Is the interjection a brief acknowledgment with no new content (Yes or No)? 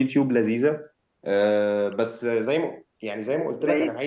No